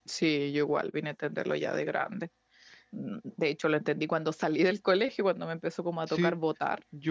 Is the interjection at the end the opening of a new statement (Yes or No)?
Yes